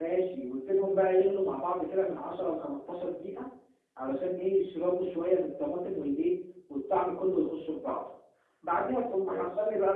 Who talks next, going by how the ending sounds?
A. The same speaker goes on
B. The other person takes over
A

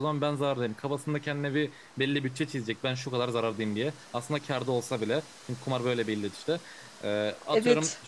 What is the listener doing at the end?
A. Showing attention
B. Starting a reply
A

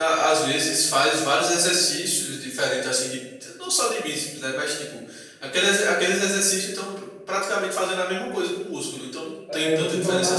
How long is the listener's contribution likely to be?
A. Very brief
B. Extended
B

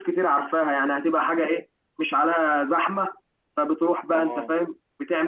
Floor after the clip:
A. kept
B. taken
A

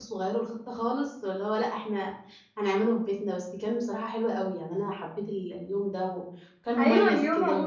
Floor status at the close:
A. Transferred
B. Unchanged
A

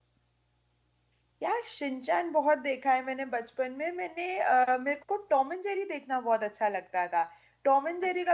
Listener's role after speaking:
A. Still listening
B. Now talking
A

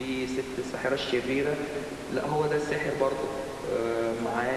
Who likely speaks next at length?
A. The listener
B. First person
A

